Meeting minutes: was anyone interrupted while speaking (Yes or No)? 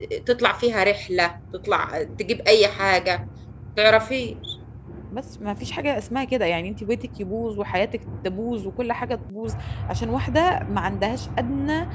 No